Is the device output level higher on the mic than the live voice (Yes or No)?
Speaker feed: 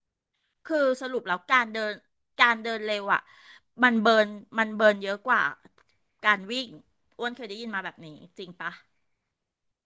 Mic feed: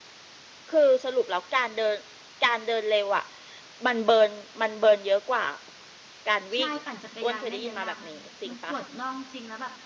Yes